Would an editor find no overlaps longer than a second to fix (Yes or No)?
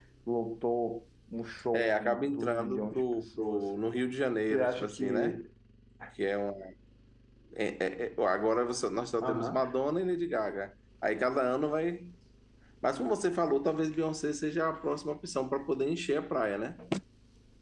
No